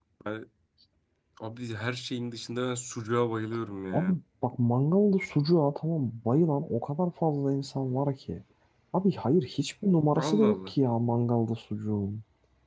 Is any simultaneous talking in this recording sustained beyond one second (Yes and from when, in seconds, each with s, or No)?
No